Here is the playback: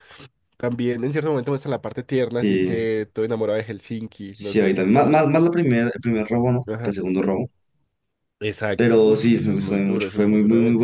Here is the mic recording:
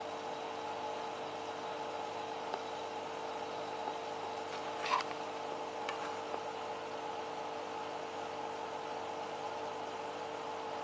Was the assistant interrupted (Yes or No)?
No